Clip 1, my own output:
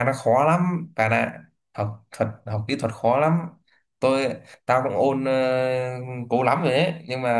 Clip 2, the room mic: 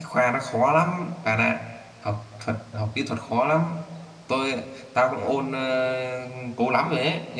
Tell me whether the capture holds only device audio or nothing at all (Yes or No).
Yes